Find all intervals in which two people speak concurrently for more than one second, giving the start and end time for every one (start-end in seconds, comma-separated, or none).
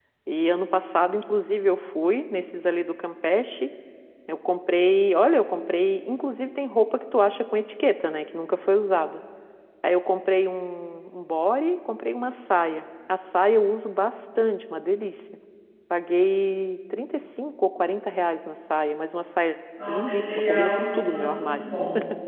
19.9-21.6